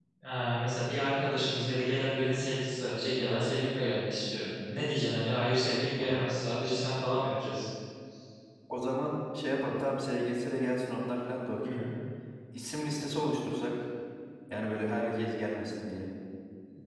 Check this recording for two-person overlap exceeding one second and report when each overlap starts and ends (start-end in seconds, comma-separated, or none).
none